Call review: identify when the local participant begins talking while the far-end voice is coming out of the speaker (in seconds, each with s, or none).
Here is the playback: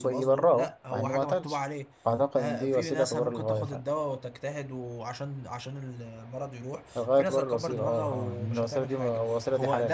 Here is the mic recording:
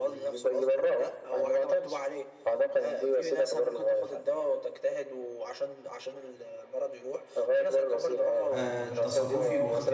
8.5 s